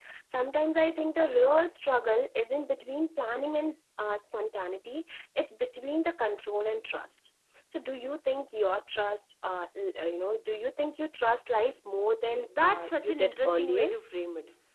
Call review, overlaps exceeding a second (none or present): present